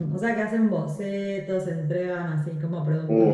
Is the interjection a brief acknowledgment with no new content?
No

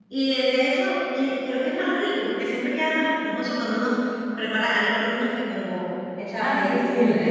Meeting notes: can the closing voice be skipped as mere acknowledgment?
No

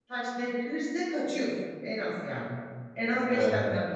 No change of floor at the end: Yes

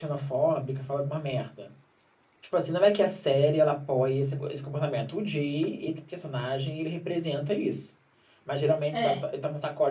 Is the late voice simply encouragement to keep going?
Yes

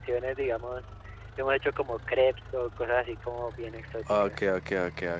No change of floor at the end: No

